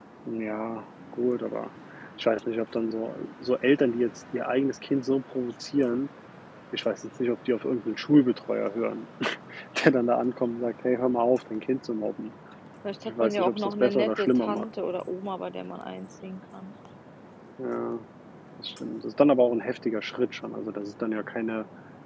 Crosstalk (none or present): present